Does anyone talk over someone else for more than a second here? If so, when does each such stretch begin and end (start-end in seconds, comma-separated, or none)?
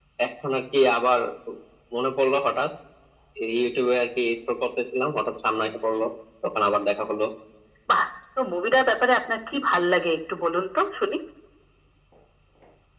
none